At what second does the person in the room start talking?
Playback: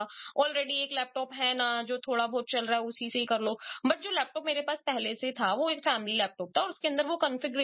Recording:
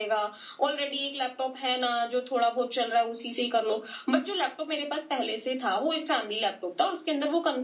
none

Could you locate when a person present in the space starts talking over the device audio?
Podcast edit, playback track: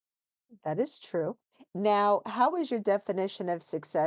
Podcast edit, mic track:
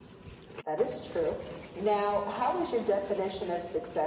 none

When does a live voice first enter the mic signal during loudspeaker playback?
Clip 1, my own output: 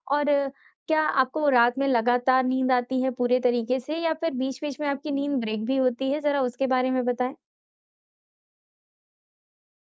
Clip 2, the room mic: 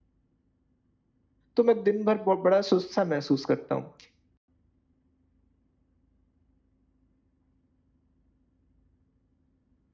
1.6 s

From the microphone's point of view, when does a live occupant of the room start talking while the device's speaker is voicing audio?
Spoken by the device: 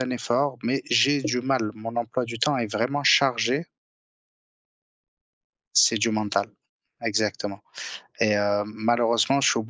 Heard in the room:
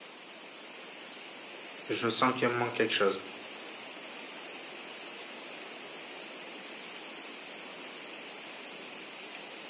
1.9 s

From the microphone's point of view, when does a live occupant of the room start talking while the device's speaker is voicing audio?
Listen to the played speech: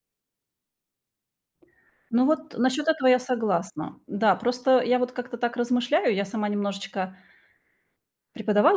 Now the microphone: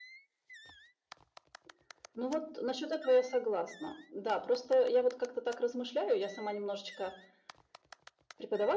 none

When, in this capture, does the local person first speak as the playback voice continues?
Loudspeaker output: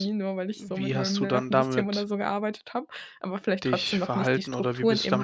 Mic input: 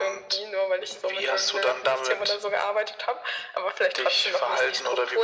none

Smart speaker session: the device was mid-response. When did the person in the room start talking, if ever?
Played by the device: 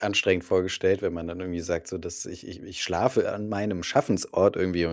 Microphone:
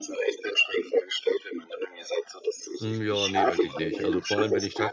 2.8 s

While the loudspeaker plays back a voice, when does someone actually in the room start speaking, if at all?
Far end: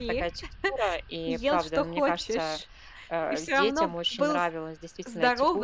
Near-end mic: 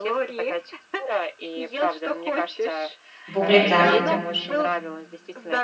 3.4 s

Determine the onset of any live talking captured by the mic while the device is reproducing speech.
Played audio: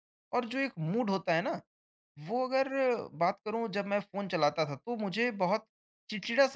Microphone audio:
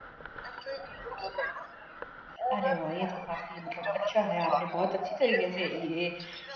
2.5 s

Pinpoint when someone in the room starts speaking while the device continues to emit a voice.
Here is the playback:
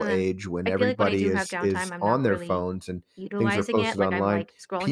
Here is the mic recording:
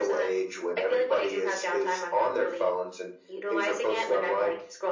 none

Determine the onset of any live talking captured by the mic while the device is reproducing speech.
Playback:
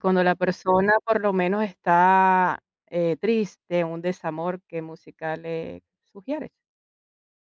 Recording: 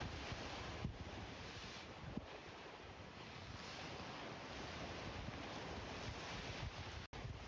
none

